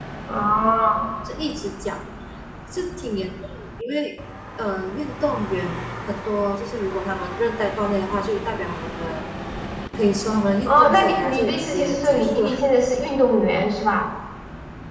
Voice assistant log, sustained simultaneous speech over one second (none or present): present